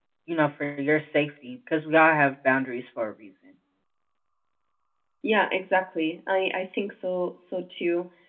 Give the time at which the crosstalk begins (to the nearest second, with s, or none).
none